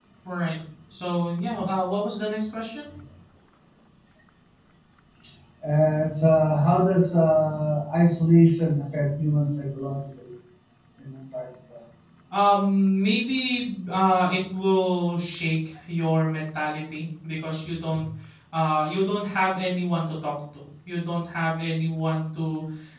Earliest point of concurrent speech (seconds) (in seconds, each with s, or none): none